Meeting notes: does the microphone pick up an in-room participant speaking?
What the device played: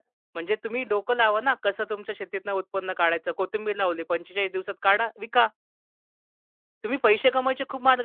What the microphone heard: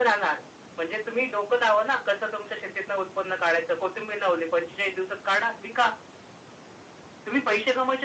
No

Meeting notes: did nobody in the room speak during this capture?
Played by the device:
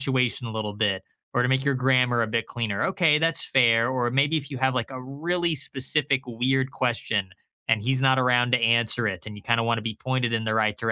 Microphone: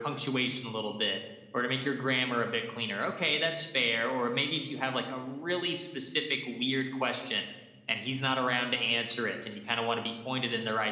Yes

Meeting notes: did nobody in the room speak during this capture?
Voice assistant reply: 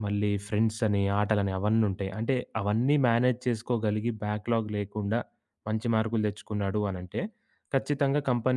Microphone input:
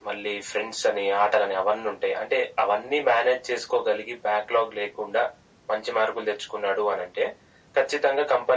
Yes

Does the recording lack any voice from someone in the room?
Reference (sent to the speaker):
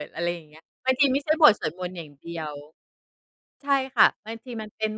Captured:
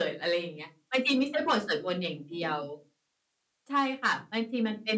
Yes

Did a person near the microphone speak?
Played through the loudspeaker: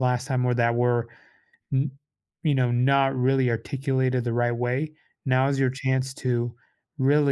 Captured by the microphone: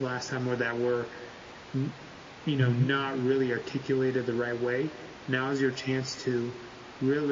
Yes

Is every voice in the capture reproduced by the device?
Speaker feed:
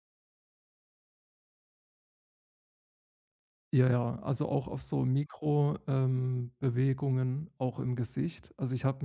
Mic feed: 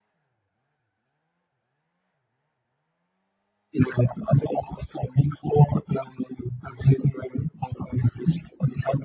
Yes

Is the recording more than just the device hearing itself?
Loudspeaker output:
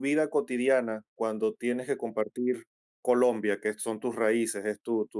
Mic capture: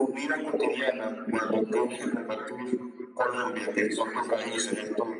No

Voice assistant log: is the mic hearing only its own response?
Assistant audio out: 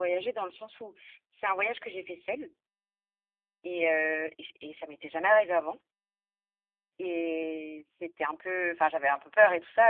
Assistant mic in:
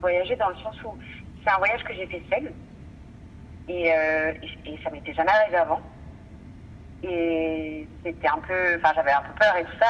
Yes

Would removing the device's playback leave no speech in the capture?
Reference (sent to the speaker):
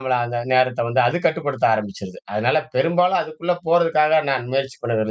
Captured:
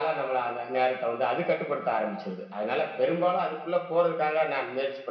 Yes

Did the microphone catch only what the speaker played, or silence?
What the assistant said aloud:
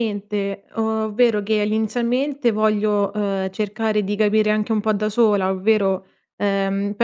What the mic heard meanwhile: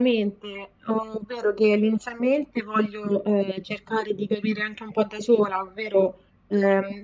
Yes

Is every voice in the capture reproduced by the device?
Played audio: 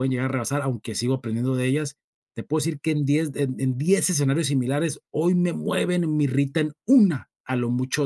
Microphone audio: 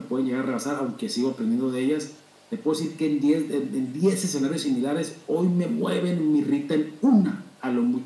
Yes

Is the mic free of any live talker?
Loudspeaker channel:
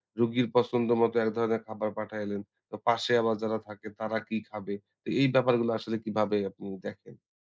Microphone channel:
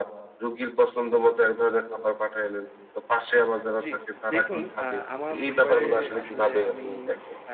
No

